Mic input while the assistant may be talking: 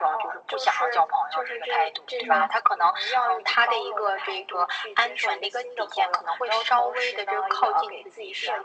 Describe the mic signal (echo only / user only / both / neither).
both